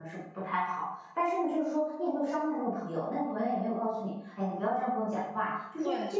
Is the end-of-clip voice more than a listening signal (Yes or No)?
No